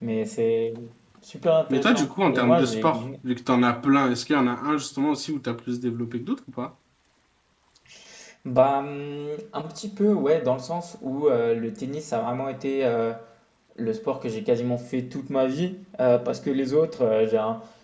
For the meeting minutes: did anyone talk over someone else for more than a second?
Yes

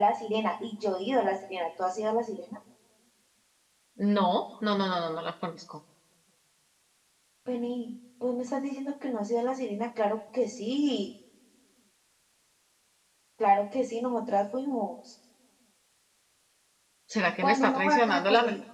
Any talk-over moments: Yes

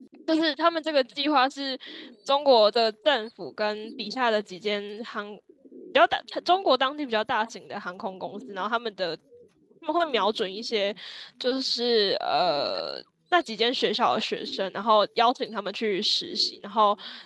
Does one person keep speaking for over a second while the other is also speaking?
No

